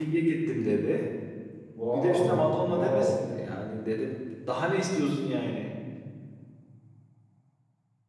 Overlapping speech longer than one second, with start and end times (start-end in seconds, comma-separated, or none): 1.9-3.2